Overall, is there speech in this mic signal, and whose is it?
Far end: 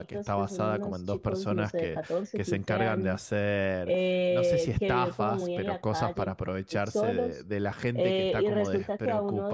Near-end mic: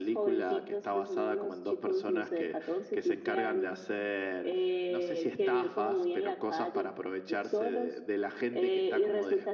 echo only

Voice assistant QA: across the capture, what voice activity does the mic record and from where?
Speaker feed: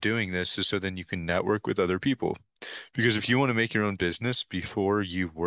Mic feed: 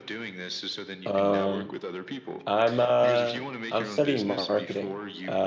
both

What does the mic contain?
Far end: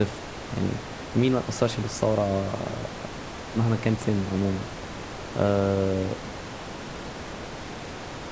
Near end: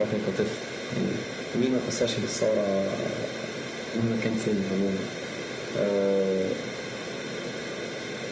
echo only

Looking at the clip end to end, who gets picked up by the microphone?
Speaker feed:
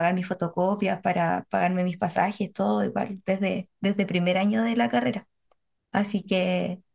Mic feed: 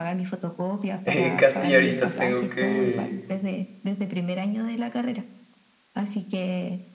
both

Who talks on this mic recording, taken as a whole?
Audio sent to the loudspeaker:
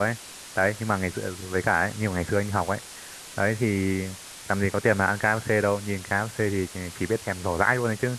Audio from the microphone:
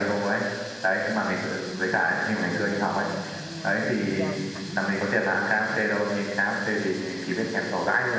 both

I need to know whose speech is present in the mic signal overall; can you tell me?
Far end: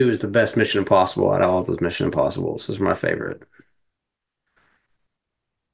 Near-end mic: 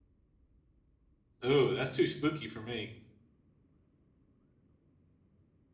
user only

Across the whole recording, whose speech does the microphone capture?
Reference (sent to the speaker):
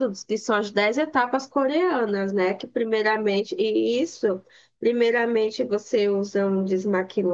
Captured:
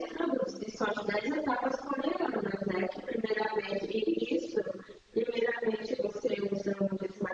echo only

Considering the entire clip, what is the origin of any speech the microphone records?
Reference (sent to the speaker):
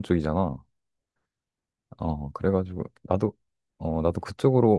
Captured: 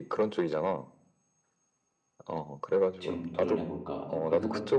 both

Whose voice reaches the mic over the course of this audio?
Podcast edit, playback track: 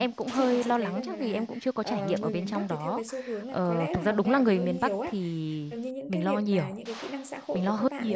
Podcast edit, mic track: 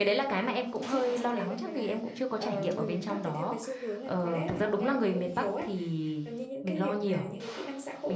echo only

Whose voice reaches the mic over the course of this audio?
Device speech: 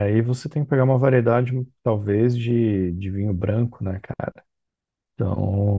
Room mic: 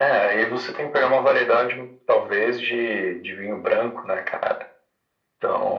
echo only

